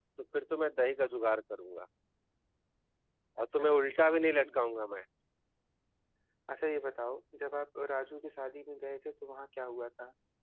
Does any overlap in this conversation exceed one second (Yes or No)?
No